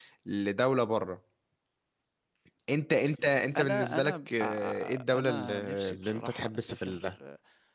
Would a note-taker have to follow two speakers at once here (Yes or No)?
Yes